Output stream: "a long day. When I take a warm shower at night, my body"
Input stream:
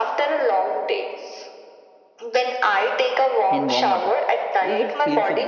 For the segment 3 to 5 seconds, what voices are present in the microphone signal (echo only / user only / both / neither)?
both